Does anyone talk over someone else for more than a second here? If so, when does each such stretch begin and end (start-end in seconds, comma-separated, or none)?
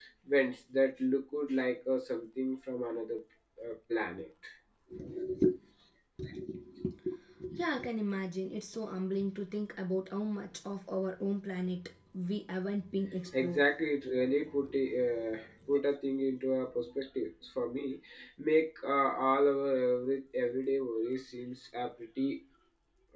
none